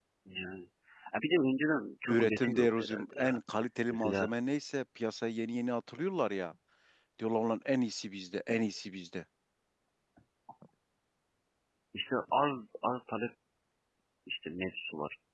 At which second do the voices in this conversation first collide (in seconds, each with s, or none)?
2.1 s